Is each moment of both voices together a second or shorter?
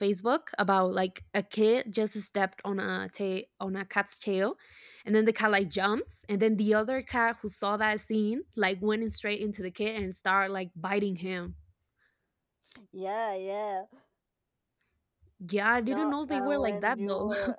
No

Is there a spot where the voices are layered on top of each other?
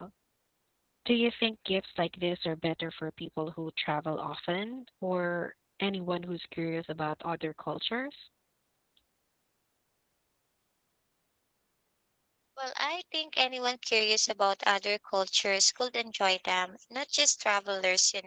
No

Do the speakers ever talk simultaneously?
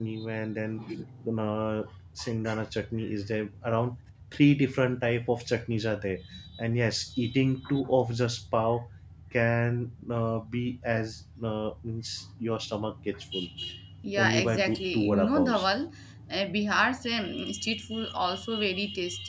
Yes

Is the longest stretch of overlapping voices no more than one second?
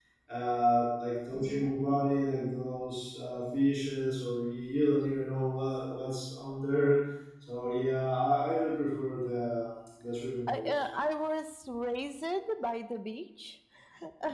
Yes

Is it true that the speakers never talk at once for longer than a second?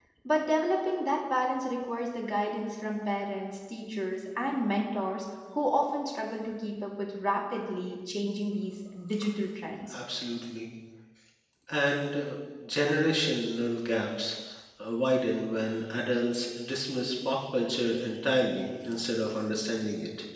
Yes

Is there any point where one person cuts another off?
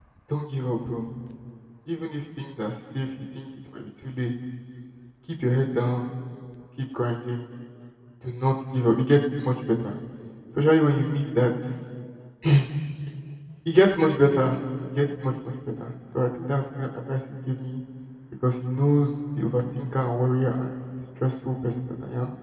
No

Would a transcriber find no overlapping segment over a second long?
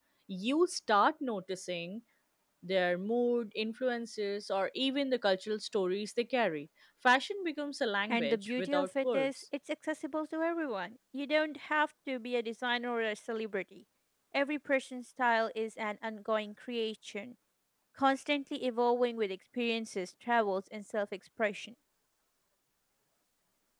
No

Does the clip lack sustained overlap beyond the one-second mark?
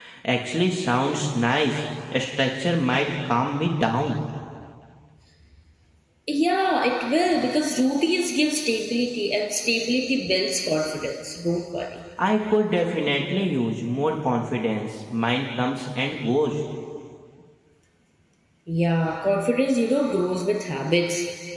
Yes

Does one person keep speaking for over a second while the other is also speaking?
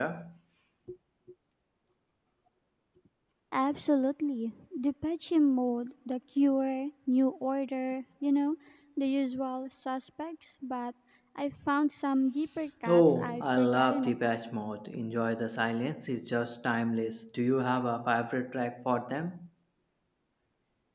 Yes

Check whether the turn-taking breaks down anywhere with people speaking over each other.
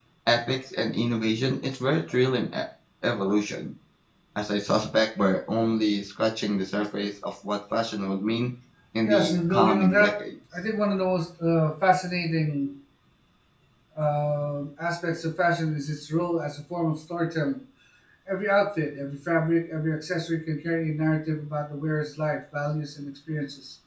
Yes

